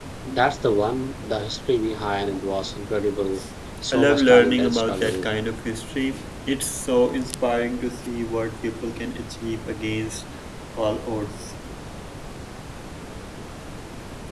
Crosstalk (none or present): present